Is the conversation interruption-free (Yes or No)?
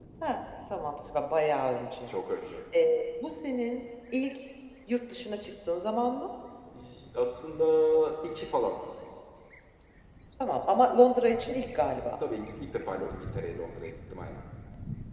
Yes